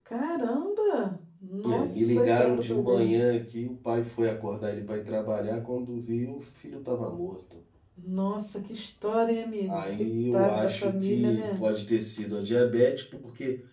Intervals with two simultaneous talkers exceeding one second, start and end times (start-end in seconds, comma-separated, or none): 1.6-3.1, 9.7-11.6